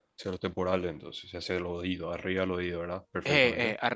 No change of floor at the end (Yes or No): No